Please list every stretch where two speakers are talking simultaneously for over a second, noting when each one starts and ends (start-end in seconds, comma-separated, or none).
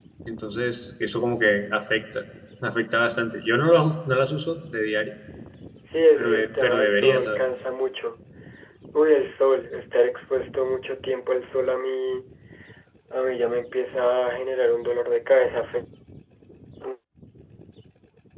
6.2-7.4